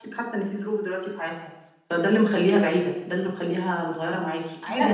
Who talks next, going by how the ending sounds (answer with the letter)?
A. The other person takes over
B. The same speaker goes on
A